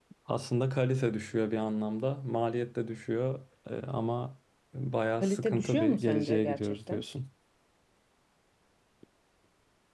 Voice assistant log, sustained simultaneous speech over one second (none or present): present